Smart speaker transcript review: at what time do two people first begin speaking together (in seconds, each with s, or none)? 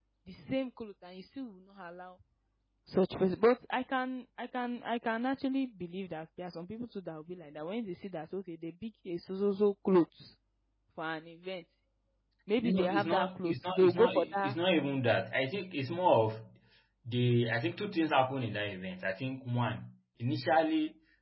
12.6 s